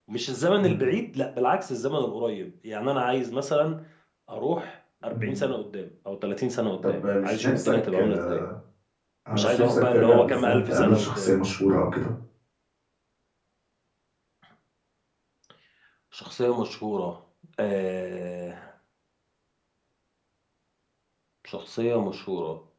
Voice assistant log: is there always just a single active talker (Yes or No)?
No